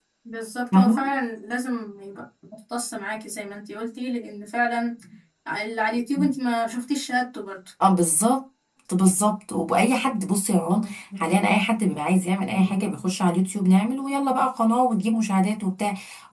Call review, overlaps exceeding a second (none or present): none